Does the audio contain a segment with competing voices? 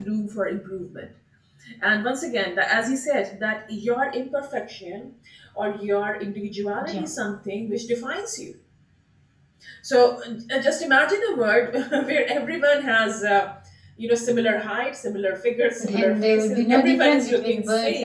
Yes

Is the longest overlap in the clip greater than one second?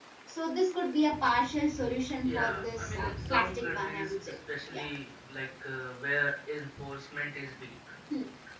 Yes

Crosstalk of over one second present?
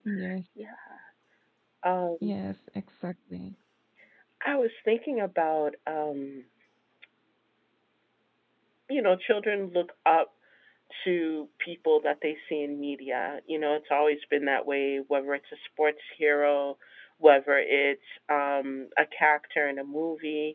No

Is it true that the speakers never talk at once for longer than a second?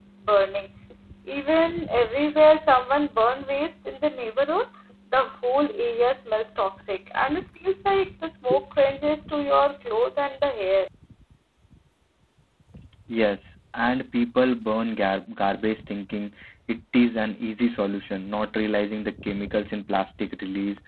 Yes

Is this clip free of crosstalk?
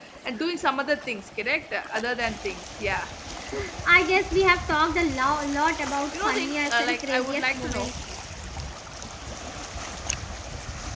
No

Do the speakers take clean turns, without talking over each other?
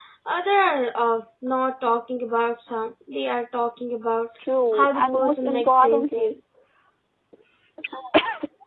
No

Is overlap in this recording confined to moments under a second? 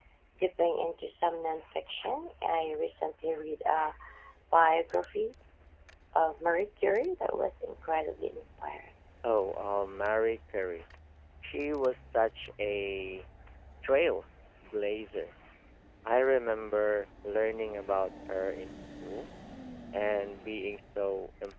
Yes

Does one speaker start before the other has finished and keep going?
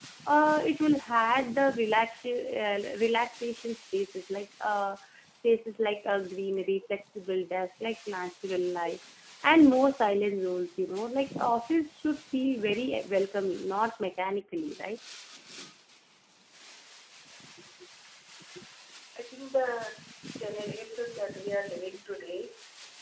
No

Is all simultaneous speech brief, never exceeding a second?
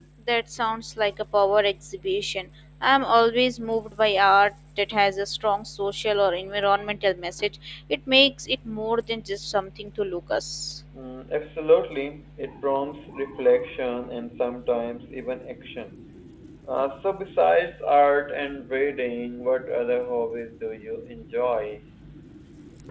Yes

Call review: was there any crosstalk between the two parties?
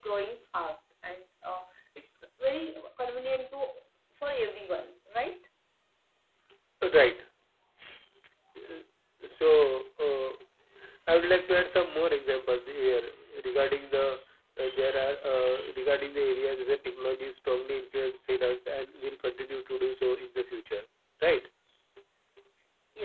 No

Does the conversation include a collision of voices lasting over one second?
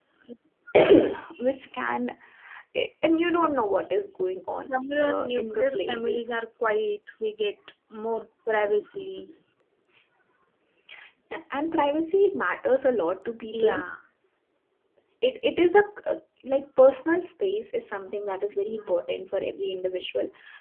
Yes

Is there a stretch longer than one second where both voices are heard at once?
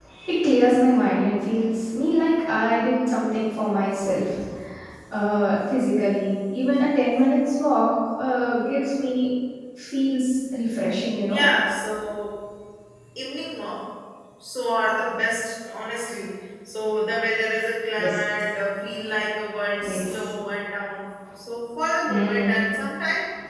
No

